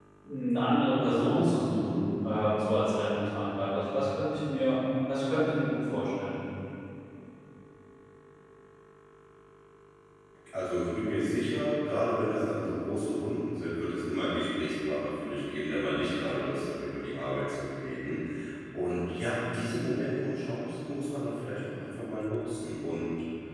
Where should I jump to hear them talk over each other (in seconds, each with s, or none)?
none